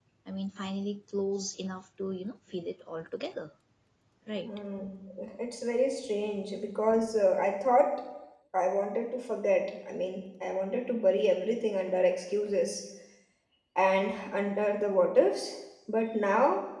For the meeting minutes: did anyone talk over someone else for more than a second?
No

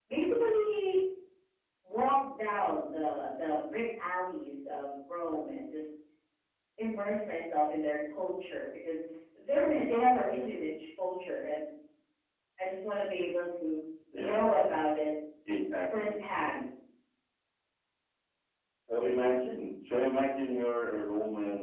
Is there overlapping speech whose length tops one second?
No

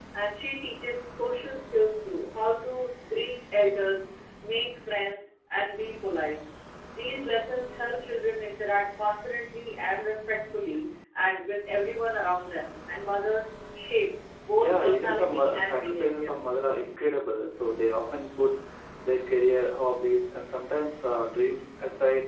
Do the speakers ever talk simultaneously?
Yes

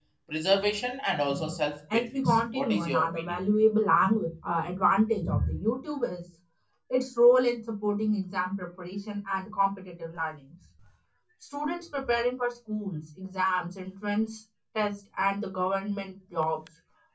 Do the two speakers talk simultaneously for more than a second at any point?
Yes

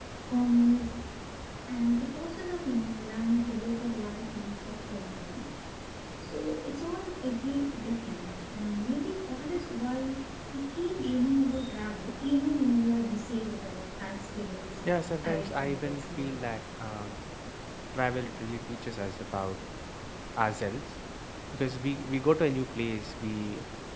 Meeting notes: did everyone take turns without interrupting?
No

